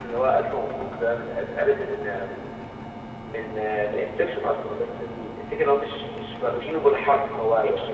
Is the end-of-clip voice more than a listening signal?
No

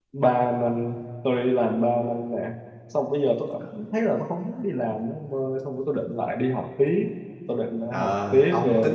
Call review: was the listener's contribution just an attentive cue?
No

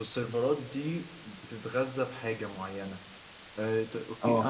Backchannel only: Yes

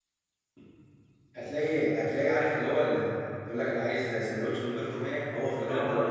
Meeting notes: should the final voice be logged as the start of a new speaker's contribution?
Yes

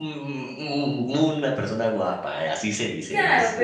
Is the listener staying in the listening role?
No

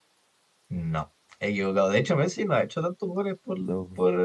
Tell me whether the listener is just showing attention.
Yes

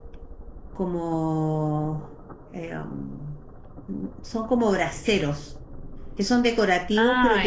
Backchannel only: Yes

